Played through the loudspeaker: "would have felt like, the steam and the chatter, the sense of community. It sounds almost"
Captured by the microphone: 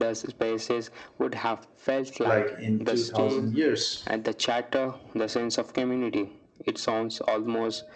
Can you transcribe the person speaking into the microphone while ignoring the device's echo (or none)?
like in two thousand years.